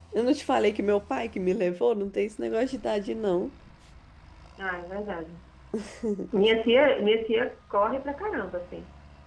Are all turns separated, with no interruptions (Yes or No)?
Yes